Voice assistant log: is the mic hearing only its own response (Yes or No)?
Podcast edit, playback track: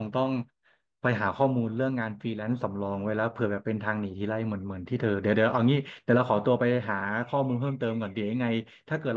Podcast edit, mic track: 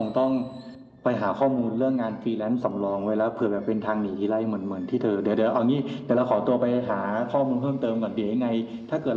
Yes